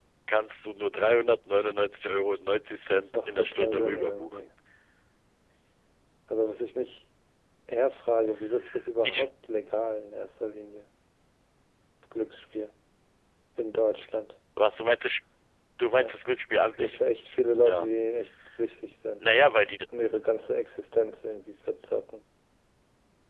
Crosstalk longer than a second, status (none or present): present